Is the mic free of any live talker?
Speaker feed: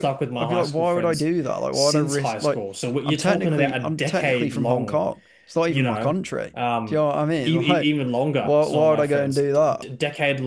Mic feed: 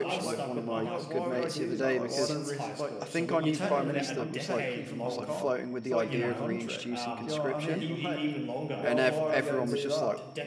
No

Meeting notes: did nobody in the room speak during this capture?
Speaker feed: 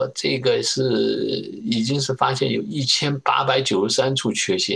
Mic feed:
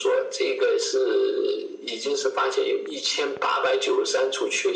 Yes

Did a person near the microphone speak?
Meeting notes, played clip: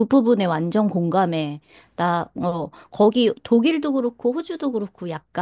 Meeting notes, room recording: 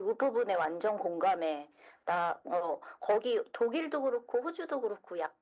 No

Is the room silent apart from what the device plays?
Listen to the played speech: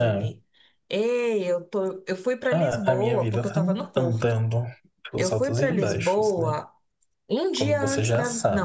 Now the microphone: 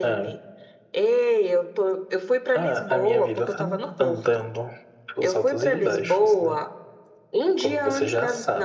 Yes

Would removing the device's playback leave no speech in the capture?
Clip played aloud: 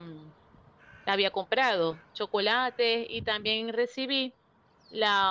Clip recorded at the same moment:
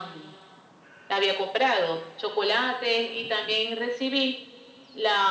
Yes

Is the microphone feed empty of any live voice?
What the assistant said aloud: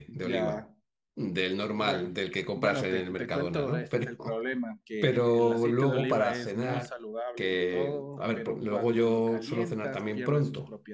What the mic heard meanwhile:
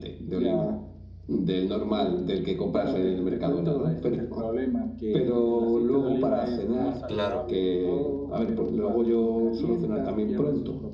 No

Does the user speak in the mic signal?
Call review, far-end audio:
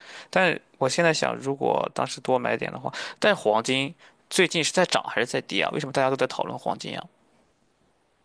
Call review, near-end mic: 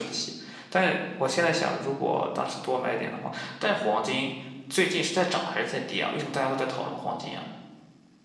No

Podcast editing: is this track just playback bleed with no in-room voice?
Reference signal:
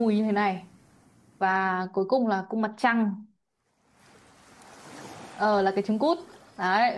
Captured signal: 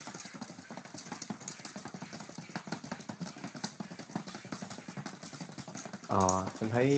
No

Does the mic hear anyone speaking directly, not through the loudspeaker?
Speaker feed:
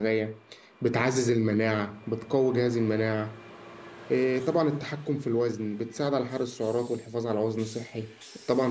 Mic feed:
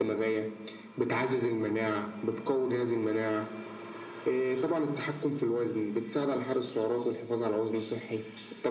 No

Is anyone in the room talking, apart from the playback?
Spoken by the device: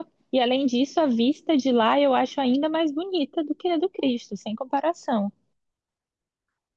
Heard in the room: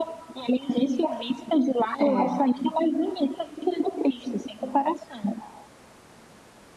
Yes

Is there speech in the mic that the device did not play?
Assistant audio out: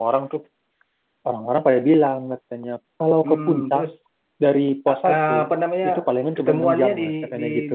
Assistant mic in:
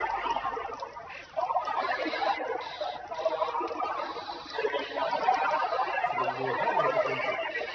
Yes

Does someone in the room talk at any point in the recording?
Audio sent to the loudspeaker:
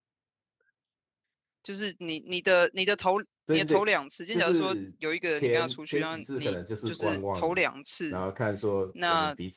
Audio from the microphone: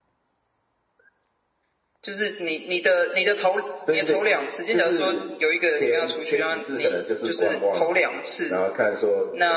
No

